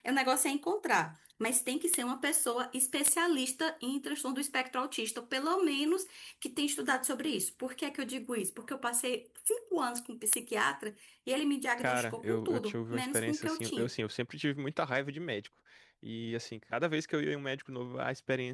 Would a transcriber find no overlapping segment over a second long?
No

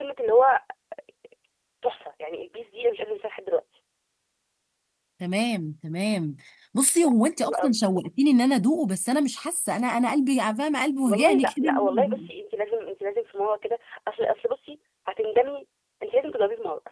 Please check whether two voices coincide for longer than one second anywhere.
Yes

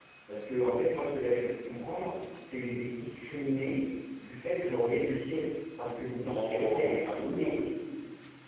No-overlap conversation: No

